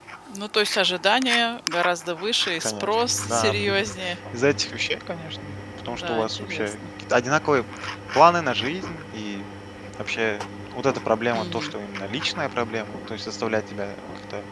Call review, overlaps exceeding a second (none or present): present